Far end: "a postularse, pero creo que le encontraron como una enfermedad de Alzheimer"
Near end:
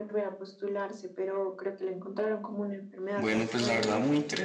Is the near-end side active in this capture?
Yes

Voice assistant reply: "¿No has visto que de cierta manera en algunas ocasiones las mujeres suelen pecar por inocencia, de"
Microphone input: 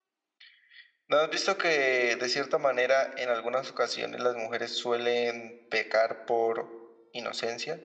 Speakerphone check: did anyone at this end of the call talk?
No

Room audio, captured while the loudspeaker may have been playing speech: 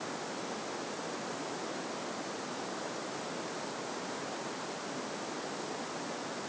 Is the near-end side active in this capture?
No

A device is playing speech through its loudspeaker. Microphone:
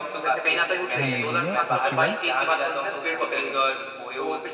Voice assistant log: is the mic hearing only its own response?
No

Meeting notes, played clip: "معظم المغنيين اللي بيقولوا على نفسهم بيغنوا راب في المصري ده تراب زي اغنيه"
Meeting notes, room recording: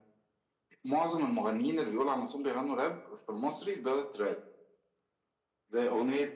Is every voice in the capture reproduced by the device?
Yes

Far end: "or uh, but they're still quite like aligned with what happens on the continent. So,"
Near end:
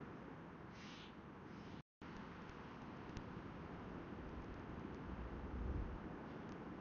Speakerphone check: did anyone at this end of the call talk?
No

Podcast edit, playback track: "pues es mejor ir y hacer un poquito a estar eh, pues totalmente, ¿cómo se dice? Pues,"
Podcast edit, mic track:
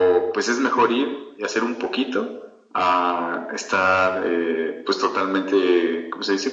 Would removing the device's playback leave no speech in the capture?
Yes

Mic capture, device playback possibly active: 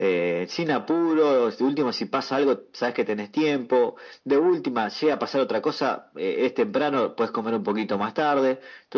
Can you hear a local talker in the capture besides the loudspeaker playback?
No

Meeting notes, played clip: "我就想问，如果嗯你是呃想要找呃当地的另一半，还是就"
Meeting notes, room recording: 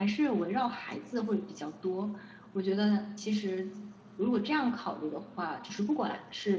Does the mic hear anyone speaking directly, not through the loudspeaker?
Yes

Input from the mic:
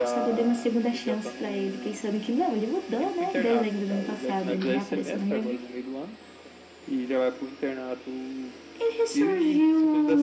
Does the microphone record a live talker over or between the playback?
No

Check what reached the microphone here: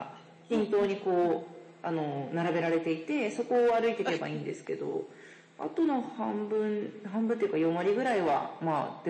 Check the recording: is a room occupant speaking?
Yes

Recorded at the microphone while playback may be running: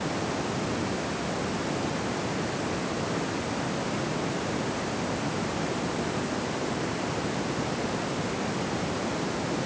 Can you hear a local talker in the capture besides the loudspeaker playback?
No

